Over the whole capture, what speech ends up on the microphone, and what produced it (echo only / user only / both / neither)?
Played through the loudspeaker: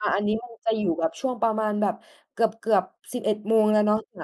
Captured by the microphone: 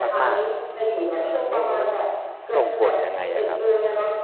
both